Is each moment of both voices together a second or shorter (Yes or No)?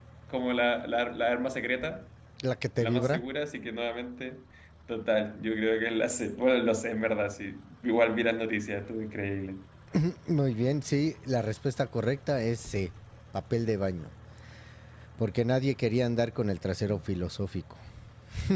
Yes